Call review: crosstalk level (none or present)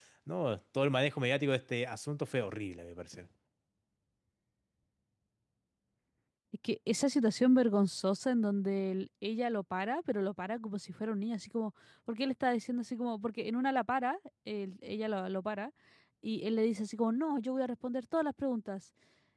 none